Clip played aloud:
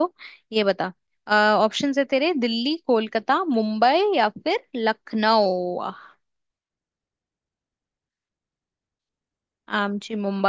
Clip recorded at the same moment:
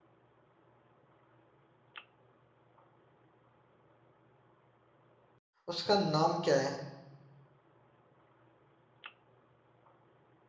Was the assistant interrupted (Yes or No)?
Yes